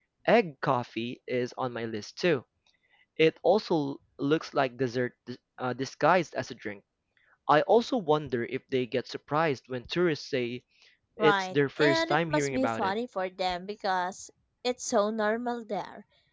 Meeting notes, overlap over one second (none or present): present